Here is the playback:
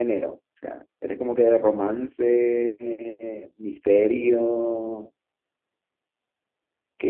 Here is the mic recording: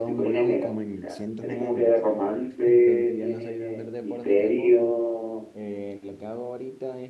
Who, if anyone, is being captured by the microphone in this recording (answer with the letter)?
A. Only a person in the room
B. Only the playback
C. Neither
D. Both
D